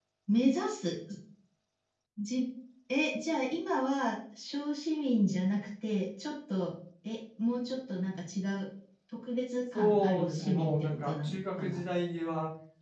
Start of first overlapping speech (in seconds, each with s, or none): 9.7 s